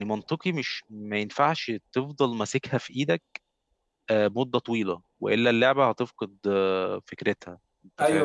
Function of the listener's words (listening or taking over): taking over